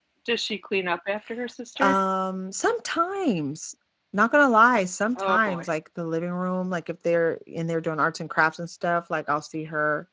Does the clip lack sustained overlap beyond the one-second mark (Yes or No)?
Yes